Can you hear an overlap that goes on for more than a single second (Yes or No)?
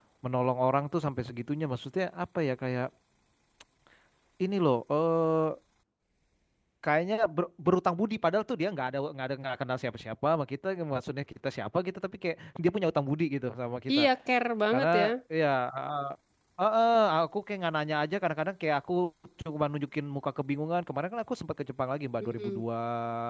No